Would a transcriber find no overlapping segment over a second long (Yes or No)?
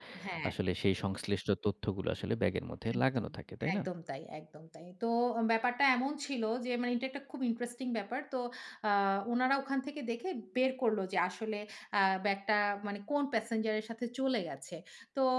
Yes